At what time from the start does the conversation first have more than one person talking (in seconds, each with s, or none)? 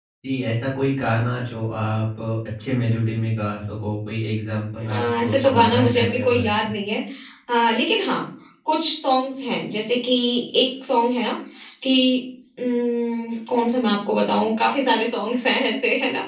4.8 s